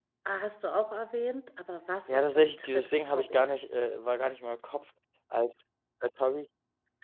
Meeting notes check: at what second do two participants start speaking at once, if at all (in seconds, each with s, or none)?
2.1 s